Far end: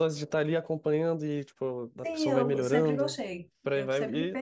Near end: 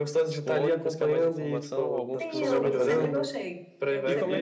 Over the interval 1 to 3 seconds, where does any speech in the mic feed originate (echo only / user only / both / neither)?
both